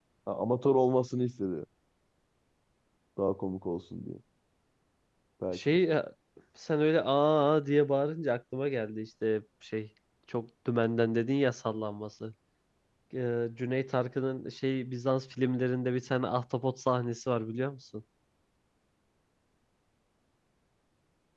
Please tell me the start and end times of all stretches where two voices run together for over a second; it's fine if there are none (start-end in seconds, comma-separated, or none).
none